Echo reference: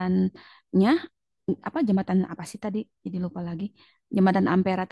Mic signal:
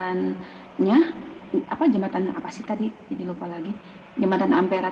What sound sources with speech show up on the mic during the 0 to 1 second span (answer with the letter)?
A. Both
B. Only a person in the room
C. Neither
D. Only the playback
D